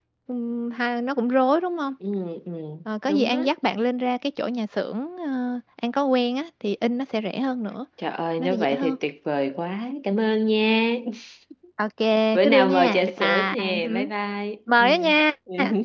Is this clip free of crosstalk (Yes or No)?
No